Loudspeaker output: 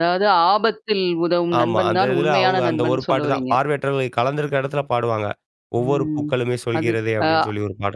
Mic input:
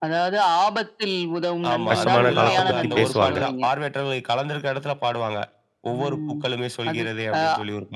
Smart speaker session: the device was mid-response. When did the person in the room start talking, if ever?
2 s

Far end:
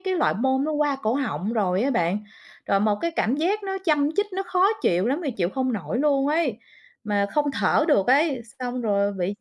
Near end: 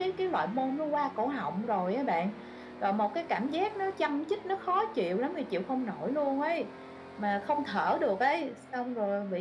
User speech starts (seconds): none

